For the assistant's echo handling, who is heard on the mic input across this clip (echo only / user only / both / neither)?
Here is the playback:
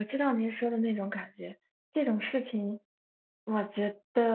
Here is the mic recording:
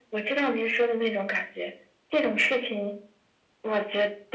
echo only